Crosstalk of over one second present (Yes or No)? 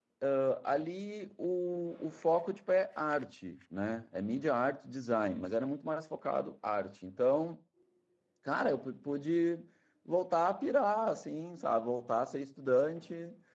No